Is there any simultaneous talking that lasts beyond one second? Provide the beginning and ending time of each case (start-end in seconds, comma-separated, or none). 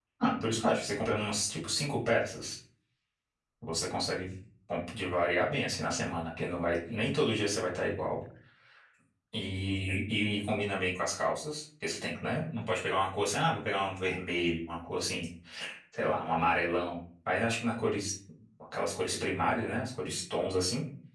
none